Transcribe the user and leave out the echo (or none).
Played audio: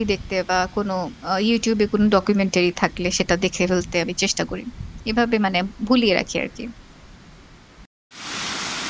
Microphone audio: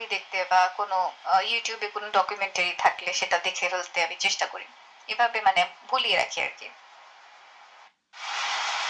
none